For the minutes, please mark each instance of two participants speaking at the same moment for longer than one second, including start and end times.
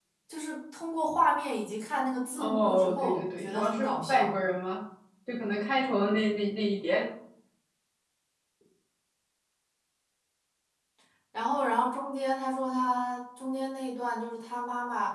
2.4-4.3

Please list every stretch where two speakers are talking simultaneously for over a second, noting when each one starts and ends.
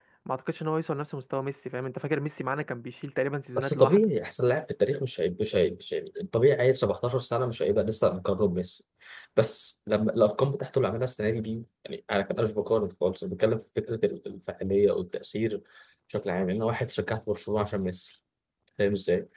none

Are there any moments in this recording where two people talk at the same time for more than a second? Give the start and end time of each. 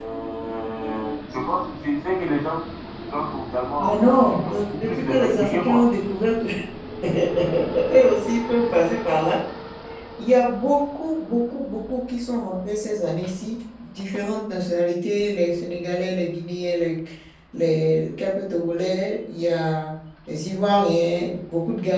3.8-5.8

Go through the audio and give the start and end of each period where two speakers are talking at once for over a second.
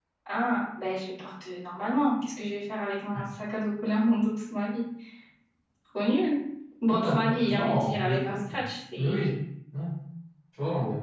6.9-8.4

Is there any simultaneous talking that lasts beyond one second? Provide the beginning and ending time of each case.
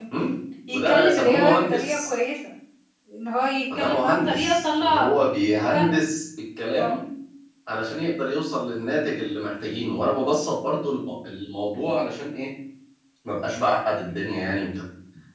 0.7-2.1, 3.8-5.1

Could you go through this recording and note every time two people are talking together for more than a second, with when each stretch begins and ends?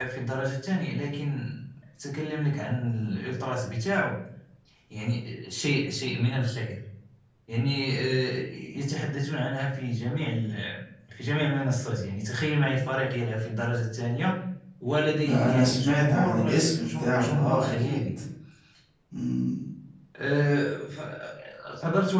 15.2-18.0

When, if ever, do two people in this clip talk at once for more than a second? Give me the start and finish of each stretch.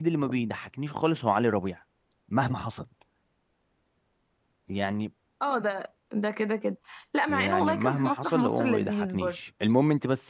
7.3-9.4

